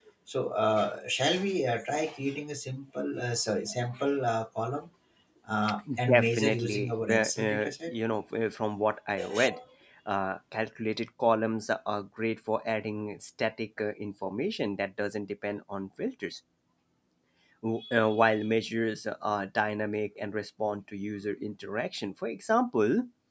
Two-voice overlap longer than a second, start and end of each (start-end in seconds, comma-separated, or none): 6.1-7.9